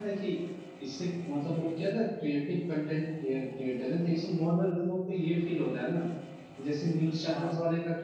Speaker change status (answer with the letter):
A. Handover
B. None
B